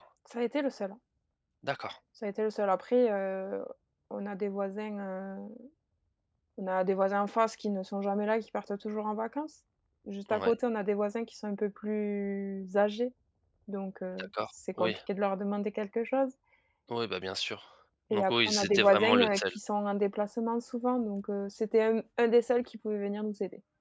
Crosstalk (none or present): present